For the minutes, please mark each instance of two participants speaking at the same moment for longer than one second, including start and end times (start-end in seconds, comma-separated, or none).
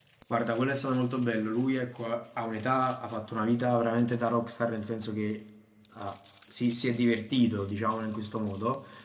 none